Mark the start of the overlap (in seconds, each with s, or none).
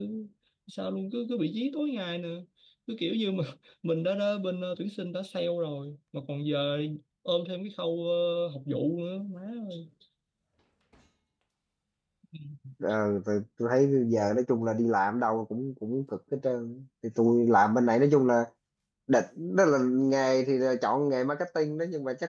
none